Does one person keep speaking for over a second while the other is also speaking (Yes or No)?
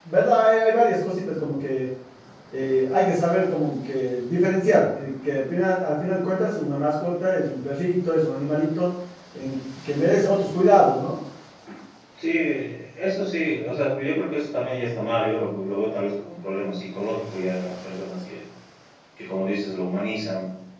No